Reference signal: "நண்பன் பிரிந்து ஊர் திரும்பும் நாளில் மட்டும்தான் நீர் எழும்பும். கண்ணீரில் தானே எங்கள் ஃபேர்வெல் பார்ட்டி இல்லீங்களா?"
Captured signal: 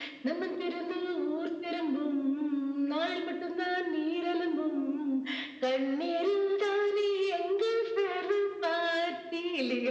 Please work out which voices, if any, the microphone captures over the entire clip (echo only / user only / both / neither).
echo only